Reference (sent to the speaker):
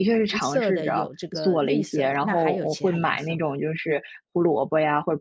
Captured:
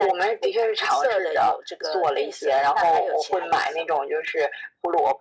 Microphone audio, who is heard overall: echo only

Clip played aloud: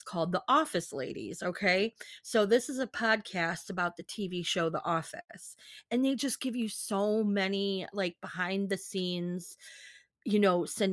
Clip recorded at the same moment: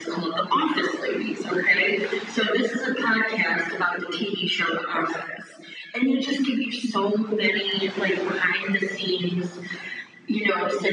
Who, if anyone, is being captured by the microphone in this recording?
echo only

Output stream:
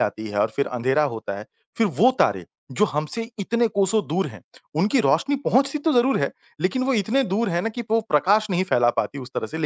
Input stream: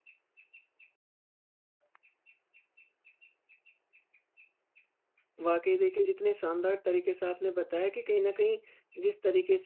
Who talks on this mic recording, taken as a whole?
user only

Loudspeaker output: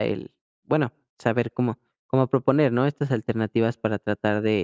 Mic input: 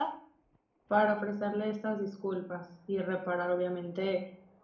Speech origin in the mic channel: user only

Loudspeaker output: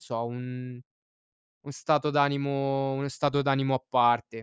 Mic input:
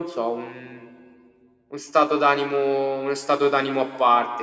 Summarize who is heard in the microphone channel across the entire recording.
echo only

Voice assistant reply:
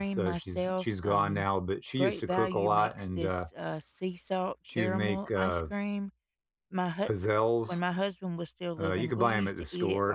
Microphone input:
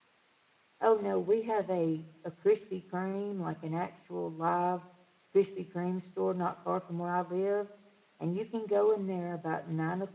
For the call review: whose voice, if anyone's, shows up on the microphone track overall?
user only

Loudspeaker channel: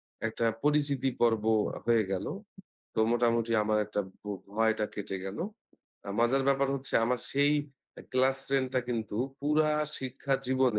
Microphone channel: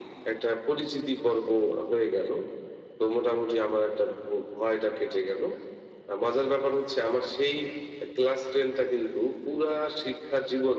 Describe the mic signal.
echo only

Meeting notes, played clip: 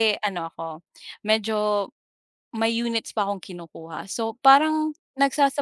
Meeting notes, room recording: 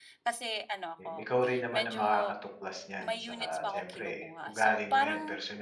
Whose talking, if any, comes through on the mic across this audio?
both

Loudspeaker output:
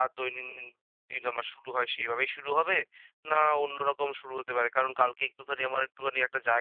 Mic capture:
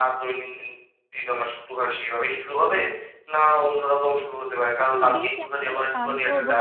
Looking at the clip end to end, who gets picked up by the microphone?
both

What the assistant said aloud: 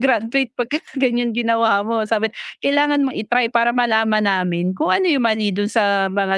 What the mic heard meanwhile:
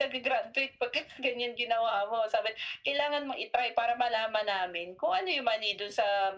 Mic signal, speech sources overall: echo only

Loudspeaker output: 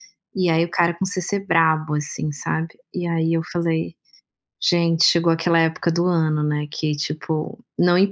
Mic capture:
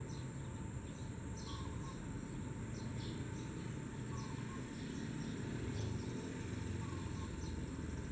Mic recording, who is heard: neither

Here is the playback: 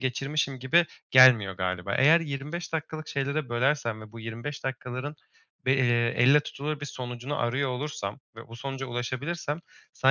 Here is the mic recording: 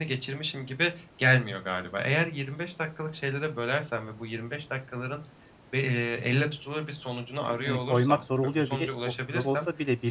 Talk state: both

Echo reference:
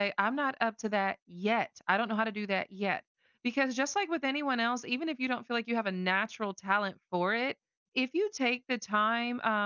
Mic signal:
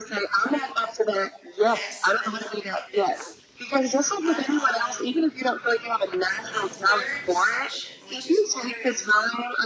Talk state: both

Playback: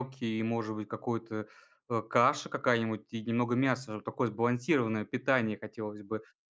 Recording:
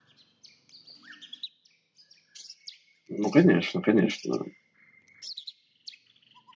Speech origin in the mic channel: user only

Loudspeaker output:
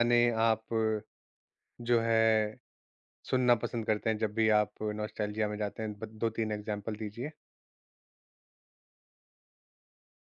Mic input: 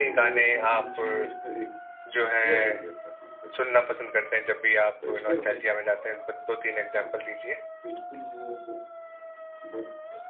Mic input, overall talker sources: both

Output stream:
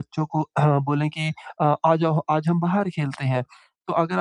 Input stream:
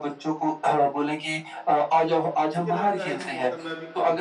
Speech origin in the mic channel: both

